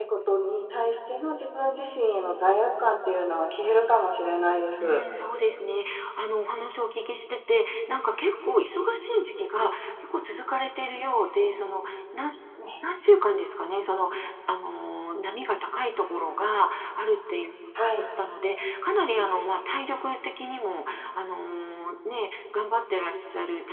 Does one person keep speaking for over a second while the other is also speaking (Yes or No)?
No